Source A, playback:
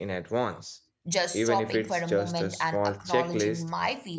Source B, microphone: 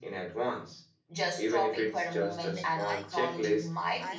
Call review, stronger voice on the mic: echo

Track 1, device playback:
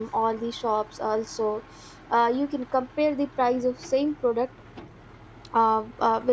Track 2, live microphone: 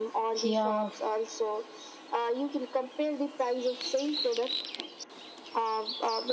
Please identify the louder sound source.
user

